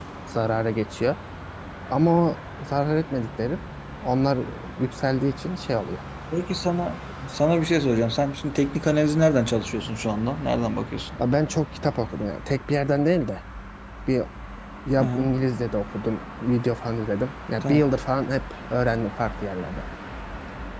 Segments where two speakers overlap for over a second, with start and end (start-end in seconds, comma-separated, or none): none